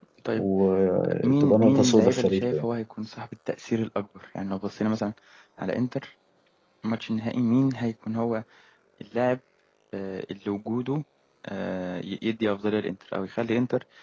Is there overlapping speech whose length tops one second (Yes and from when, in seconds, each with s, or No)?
Yes, from 1.2 s